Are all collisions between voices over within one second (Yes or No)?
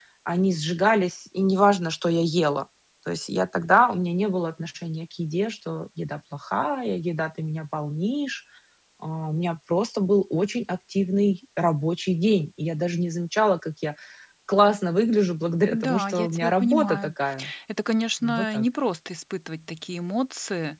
No